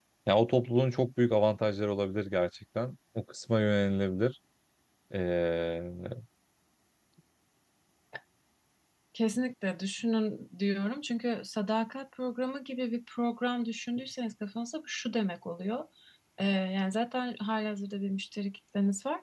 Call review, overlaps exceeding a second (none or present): none